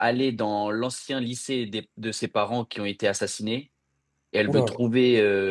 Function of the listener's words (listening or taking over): listening